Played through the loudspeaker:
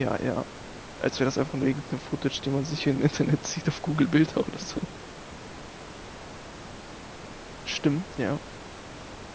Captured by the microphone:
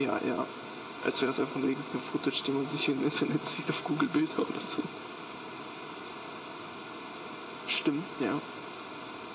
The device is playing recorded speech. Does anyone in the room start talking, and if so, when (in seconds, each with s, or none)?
none